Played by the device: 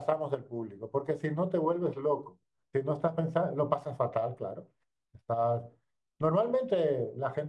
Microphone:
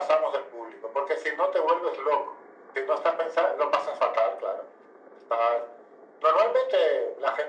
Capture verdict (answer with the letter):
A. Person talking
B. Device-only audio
B